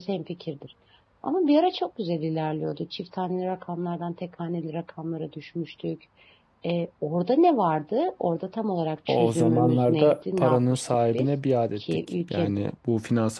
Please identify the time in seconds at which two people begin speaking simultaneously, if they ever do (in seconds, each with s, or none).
9.1 s